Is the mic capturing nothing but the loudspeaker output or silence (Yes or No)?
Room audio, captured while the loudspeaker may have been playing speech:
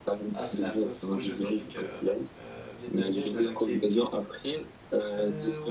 No